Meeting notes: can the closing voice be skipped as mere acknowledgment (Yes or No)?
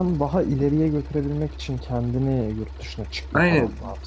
No